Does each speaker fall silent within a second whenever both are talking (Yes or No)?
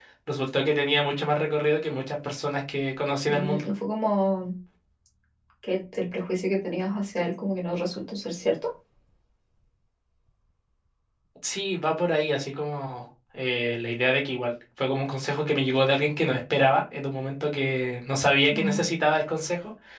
Yes